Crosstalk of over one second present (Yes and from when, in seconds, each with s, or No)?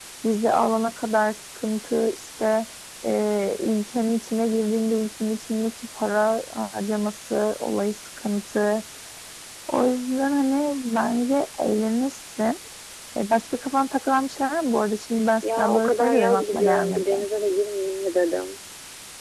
Yes, from 15.4 s